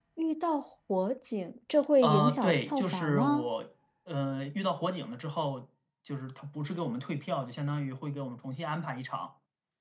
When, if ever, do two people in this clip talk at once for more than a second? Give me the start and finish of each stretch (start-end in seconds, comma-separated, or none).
2.0-3.5